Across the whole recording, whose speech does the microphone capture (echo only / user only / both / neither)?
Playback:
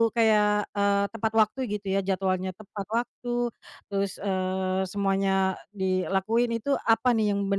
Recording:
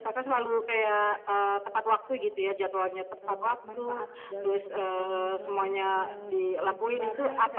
both